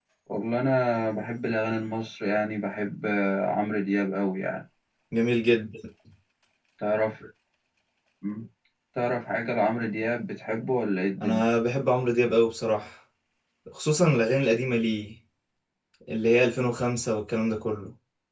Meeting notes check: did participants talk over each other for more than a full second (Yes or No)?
No